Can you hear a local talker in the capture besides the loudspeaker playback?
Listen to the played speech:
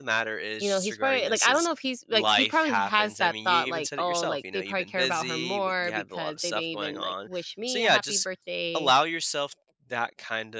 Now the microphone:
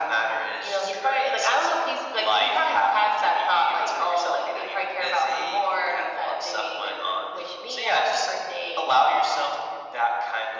No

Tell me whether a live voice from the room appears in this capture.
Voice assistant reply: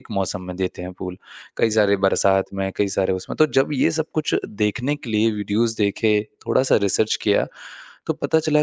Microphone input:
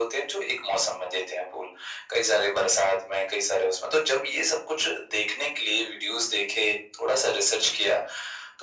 No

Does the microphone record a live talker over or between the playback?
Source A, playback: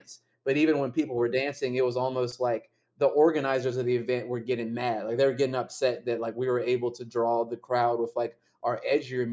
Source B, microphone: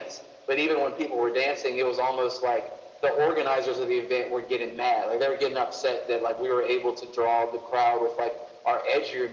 No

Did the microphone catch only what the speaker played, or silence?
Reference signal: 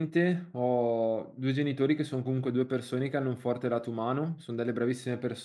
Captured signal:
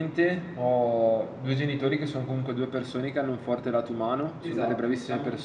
No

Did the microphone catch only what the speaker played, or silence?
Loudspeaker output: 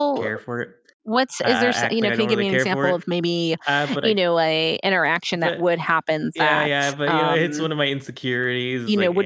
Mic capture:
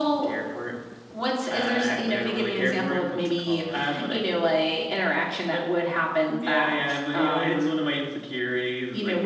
No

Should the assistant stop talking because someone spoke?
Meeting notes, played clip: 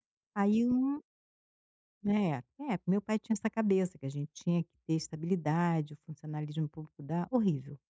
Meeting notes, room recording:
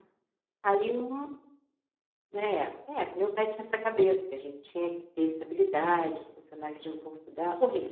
No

